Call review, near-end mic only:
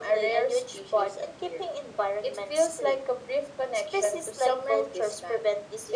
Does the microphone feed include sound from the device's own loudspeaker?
Yes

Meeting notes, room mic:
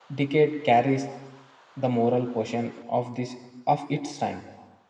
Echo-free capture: Yes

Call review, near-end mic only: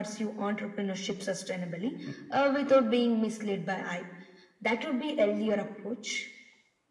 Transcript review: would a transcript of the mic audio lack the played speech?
No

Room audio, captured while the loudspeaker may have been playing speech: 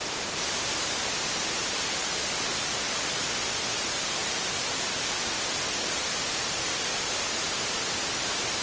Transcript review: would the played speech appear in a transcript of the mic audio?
No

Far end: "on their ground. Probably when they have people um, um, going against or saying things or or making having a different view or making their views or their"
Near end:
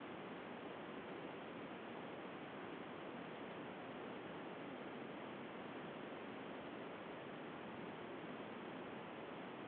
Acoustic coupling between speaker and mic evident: No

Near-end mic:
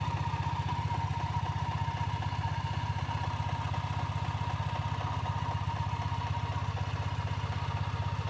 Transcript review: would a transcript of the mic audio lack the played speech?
Yes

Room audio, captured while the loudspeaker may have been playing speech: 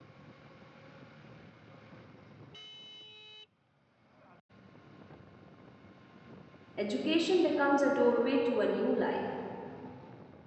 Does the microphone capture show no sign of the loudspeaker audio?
Yes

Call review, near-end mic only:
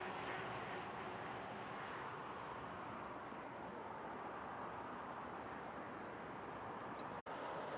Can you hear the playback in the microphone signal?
No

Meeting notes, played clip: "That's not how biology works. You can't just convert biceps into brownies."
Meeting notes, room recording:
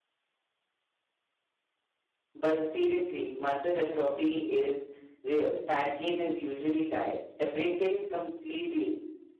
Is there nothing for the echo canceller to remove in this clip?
Yes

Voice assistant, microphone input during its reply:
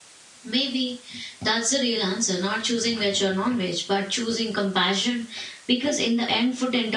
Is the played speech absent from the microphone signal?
Yes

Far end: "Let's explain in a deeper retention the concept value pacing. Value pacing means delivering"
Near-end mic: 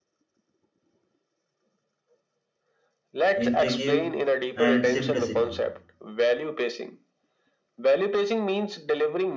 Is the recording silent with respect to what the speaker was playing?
No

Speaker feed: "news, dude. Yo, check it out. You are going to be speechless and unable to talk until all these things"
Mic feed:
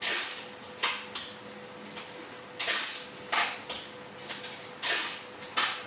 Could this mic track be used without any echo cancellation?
Yes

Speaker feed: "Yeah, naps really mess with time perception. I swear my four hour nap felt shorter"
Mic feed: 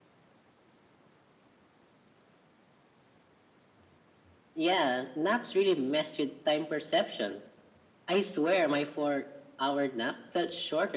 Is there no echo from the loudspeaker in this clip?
No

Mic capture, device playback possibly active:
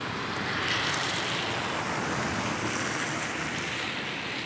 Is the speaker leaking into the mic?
No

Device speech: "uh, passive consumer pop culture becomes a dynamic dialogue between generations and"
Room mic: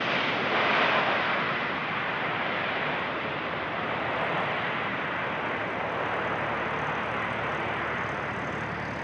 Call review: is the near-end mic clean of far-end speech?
Yes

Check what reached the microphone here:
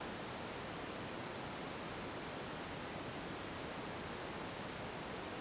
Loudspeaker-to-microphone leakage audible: No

